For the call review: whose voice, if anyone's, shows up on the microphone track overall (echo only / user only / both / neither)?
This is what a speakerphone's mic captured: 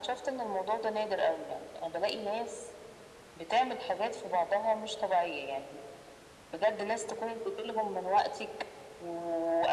echo only